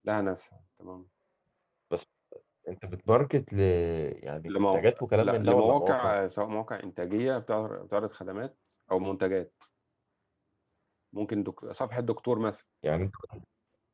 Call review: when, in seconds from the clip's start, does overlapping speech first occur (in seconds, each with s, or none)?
4.5 s